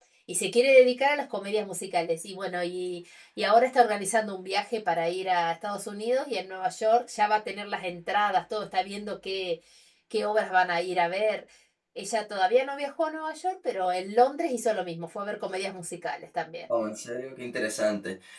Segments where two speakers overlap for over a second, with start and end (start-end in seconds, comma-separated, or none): none